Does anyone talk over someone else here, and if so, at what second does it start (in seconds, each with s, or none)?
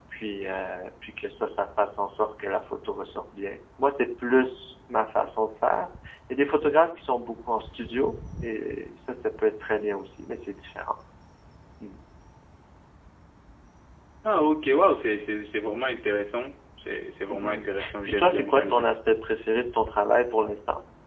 17.3 s